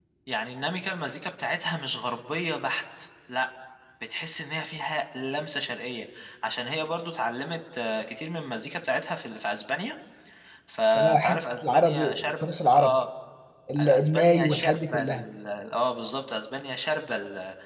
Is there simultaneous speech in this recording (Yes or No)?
Yes